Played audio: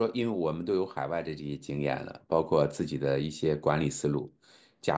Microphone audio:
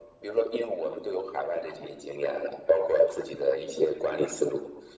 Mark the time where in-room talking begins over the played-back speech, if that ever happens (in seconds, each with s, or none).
none